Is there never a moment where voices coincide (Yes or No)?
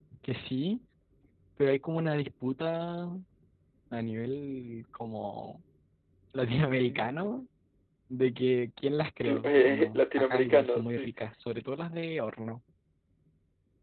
No